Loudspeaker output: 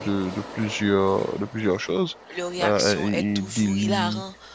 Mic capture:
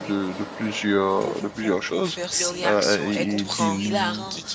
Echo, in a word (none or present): present